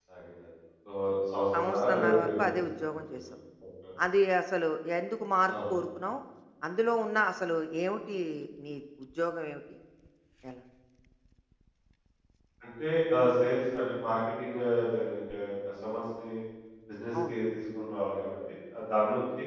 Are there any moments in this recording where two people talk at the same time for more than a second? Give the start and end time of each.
1.5-3.3

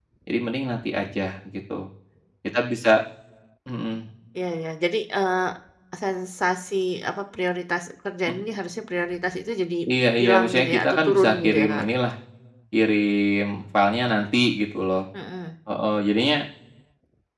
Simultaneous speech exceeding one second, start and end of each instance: 10.2-11.8

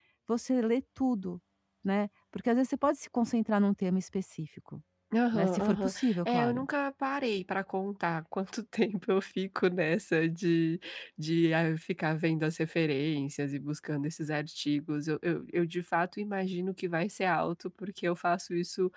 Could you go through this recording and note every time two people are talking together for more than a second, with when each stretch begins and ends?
5.3-6.7

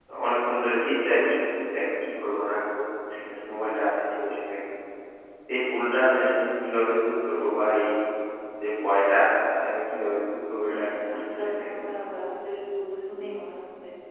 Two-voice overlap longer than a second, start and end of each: 10.7-12.0

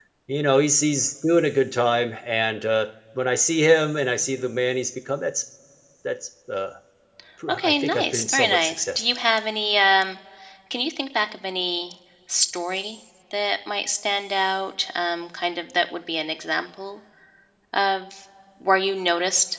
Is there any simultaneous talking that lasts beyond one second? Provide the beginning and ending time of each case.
7.5-9.0

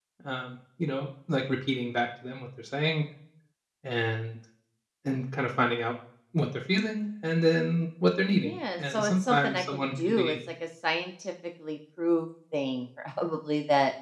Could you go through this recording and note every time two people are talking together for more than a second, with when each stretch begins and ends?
8.4-10.4

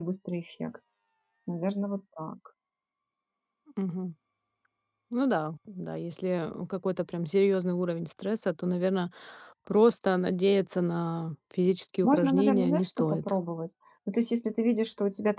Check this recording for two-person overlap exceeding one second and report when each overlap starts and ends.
12.0-13.3

